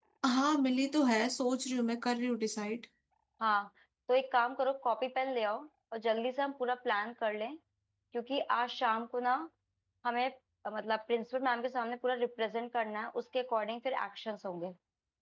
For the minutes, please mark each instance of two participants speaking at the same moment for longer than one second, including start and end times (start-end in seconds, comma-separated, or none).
none